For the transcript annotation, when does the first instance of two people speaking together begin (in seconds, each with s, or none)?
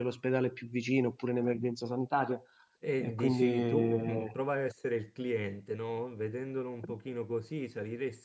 3.0 s